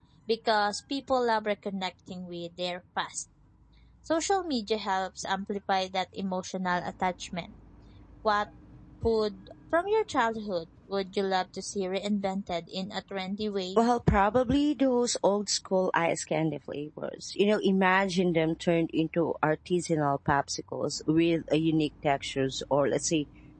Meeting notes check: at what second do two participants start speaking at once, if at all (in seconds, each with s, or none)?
none